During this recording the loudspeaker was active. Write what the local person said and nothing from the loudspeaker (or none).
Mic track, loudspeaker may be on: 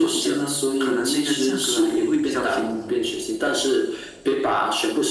none